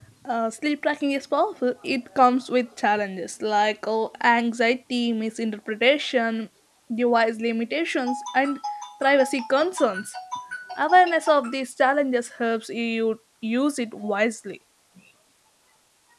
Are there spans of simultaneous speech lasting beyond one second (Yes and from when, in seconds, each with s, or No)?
No